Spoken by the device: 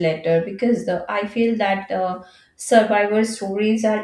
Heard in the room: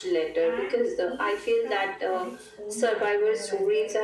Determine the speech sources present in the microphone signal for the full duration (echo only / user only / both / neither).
both